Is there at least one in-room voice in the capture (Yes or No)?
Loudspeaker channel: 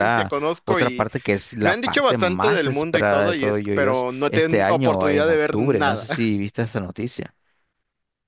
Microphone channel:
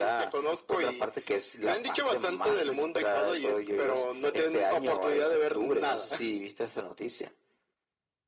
No